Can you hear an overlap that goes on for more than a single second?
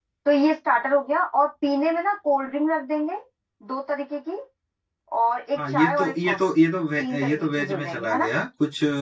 Yes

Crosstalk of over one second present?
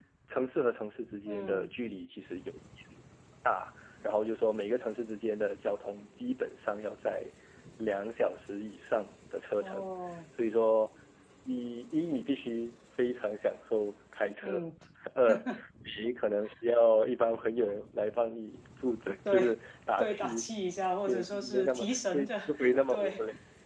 Yes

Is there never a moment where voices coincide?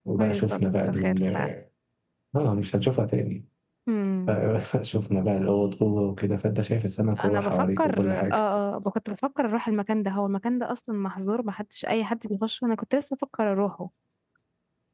No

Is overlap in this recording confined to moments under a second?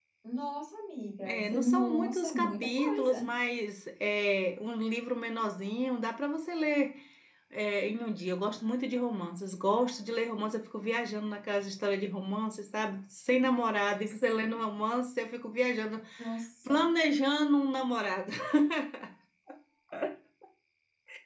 No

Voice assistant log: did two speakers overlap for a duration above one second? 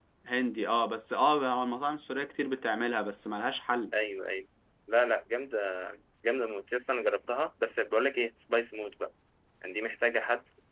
No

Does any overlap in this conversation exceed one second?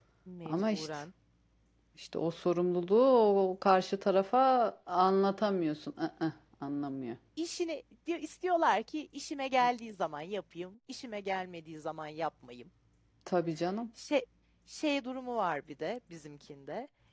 No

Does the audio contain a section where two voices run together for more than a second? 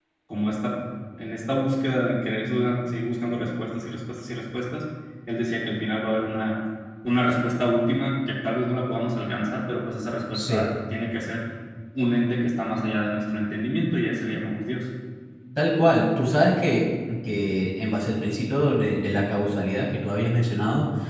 No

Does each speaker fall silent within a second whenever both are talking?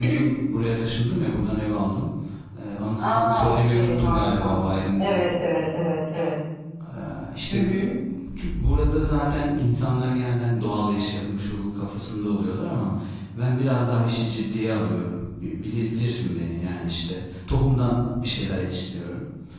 No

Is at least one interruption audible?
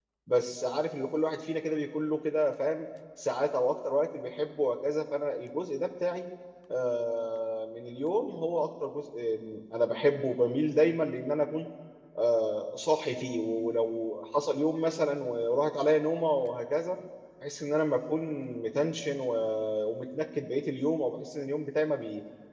No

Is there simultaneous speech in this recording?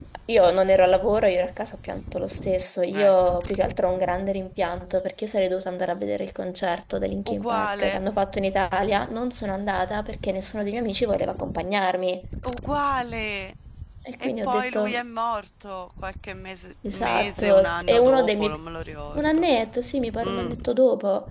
Yes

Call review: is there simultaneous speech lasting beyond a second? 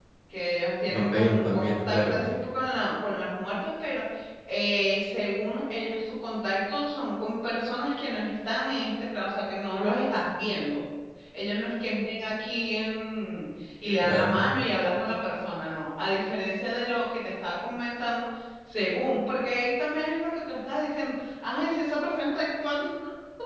Yes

